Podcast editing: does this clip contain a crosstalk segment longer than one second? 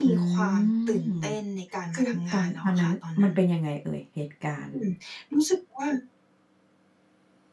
Yes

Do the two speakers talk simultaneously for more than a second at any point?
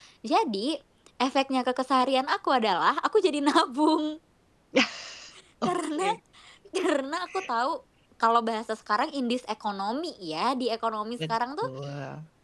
No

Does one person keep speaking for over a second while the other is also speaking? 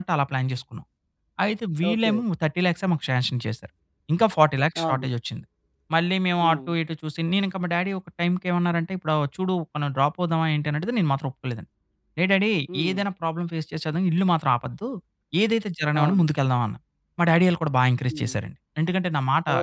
No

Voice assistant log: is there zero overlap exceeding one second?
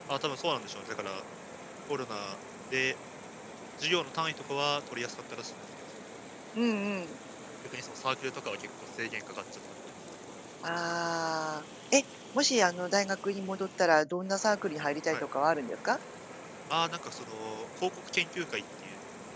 Yes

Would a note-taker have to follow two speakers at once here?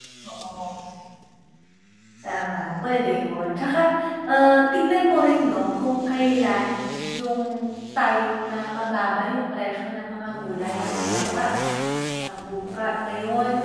No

